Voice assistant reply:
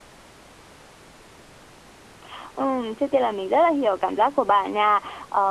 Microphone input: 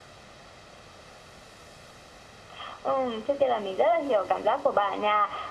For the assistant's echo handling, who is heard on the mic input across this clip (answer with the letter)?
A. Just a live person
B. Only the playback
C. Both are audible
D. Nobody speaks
B